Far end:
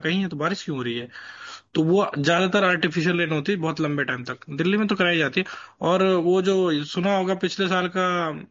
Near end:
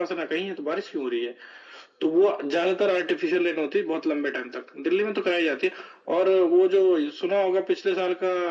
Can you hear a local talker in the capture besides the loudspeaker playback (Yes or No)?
No